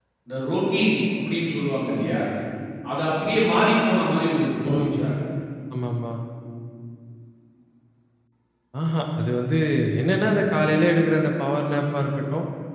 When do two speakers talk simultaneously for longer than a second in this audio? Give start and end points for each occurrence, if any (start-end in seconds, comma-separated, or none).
none